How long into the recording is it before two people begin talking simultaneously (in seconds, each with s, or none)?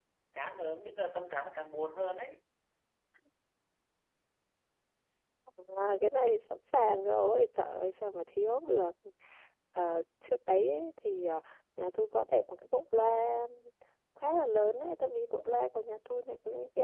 none